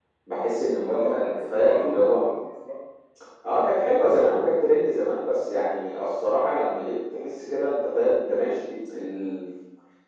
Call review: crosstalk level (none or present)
present